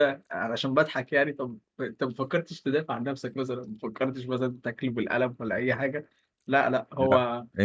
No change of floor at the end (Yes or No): No